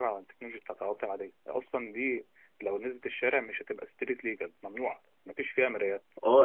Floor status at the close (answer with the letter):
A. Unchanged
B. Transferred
B